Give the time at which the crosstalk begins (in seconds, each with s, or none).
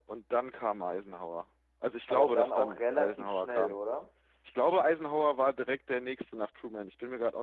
2.1 s